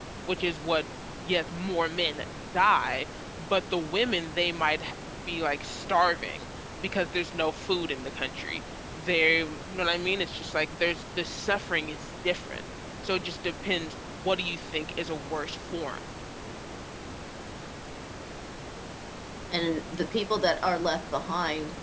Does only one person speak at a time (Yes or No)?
Yes